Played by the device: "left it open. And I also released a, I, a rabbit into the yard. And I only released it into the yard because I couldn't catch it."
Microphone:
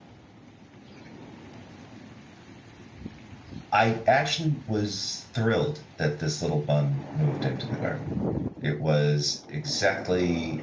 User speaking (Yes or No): Yes